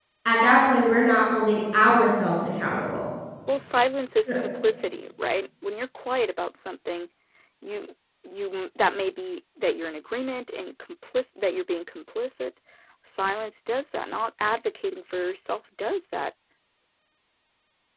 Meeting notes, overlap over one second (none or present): none